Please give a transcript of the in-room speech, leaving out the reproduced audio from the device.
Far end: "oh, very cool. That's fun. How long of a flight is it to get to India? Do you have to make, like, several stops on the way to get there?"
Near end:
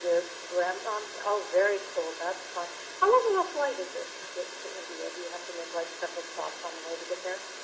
none

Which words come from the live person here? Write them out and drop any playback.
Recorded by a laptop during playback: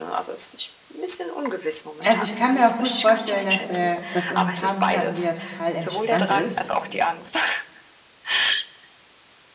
Also, ich kann mir auch gut vorstellen, dass, äh, das in ein paar Monaten wieder total entspannt ist.

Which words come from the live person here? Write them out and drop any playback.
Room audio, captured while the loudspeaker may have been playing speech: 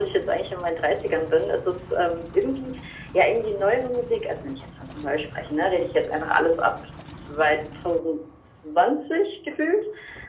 none

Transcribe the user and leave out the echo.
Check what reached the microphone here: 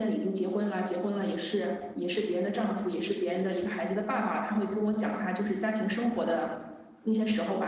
none

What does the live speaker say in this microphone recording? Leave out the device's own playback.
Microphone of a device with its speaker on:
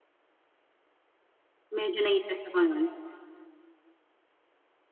Medyo nai-stress ako nun.

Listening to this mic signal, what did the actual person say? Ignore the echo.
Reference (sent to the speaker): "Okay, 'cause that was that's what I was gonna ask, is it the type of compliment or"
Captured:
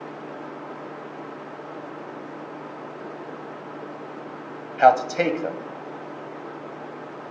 how to take them.

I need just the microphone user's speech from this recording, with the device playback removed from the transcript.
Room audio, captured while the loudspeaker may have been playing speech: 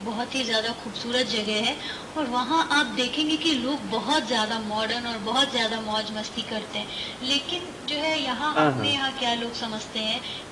हाँ, हाँ।

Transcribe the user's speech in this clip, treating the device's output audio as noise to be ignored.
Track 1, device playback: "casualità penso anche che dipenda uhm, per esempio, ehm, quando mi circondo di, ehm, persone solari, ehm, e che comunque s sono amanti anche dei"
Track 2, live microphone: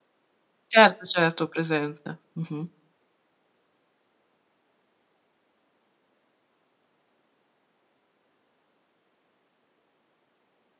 Certo, certo, ho presente. Mh-mh.

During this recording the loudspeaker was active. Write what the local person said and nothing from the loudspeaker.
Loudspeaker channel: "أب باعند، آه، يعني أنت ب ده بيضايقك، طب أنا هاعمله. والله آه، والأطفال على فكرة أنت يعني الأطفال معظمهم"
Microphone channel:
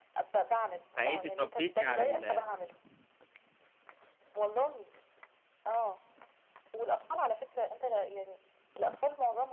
فأنتِ اتربيتِ على ال

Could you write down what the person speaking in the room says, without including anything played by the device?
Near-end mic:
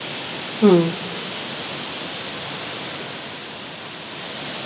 إمم.

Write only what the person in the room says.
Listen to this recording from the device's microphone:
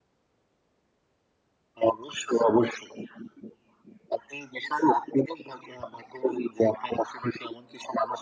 none

